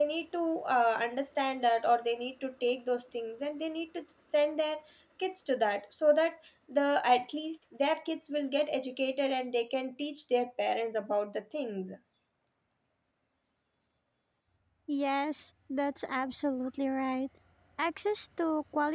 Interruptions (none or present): none